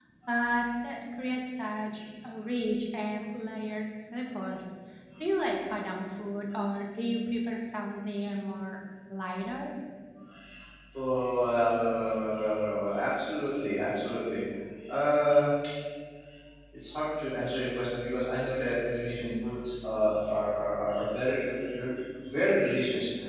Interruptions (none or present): none